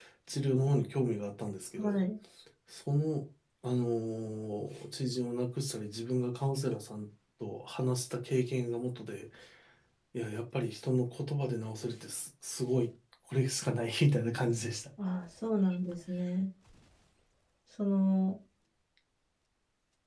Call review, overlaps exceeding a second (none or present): none